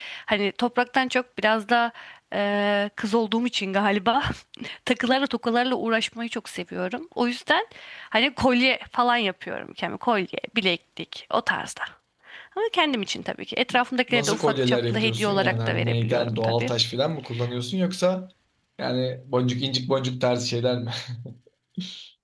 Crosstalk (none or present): present